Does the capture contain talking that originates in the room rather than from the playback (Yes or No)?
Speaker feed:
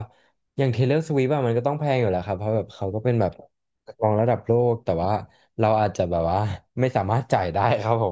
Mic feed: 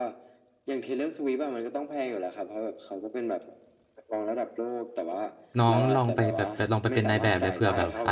Yes